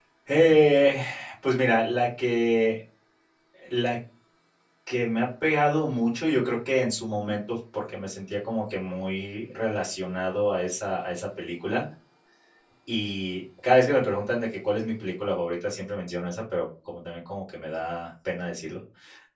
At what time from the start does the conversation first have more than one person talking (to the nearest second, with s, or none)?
none